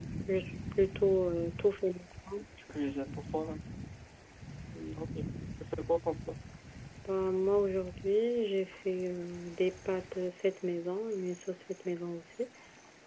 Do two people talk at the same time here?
No

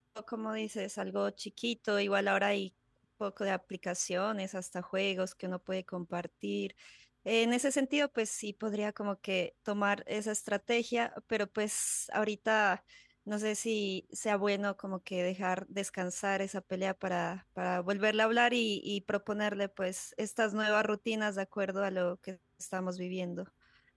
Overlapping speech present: No

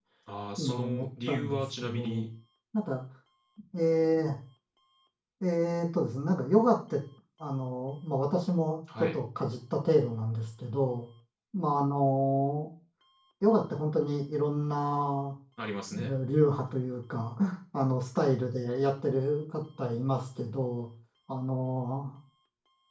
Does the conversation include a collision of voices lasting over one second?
Yes, from 0.6 s

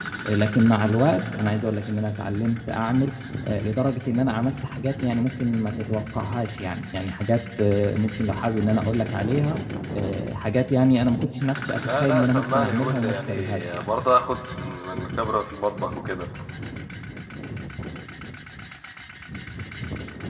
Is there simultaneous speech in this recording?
Yes, from 11.8 s

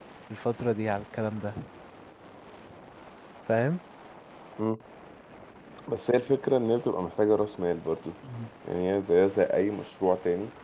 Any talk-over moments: No

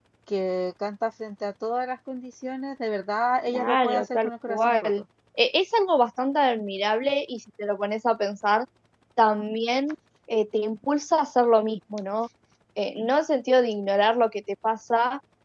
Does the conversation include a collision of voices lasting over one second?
Yes, from 3.5 s

